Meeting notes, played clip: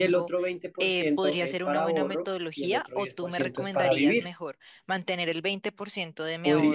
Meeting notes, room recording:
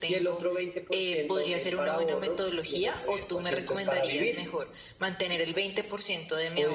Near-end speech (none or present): none